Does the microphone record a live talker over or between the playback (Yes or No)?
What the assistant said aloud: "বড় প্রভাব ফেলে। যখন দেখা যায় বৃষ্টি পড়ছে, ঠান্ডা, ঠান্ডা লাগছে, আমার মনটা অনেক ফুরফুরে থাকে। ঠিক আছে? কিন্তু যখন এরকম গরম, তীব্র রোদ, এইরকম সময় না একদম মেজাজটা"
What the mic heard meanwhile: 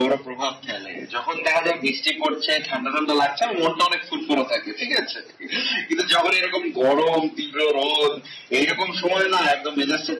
No